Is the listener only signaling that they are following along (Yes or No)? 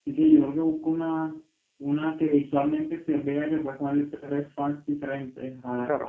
Yes